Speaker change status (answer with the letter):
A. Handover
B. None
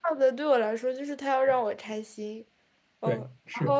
A